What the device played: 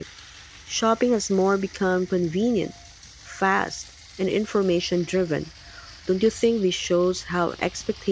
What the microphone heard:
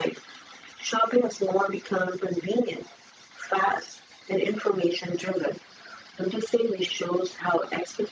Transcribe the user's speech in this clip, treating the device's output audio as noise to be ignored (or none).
none